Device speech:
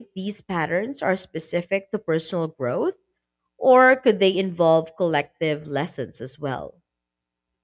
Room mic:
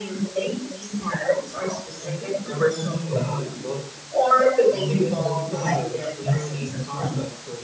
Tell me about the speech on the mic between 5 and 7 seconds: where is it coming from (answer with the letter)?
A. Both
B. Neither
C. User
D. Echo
A